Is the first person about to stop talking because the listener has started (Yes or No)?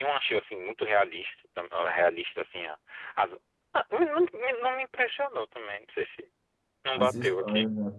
Yes